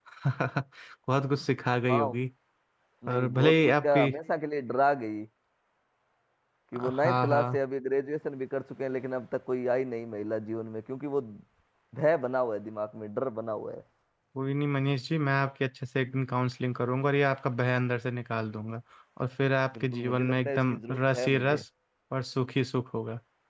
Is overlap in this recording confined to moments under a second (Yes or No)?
No